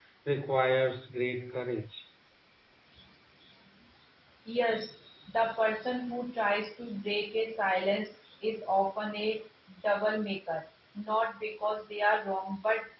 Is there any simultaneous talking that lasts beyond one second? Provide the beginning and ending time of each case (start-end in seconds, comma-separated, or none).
none